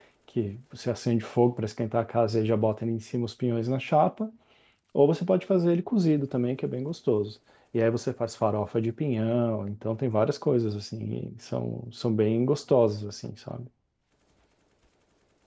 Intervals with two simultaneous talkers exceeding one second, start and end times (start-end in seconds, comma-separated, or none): none